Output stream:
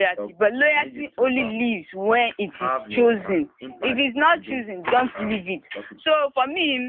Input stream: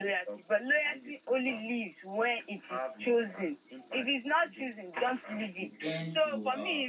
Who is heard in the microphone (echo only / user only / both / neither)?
both